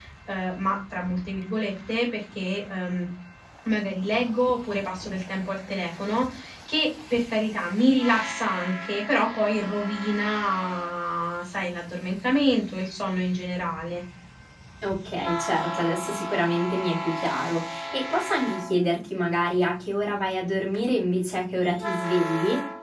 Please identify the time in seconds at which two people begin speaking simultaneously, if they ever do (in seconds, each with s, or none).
none